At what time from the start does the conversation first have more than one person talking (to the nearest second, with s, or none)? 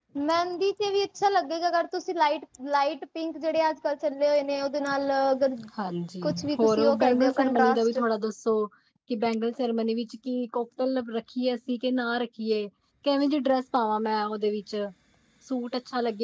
6 s